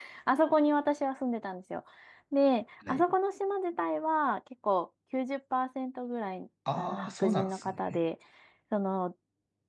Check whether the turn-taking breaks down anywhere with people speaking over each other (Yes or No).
Yes